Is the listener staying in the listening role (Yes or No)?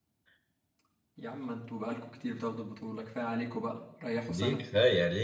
No